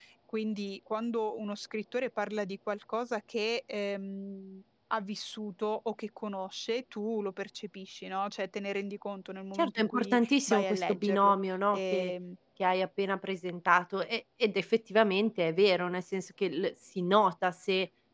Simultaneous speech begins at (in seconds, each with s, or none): 9.6 s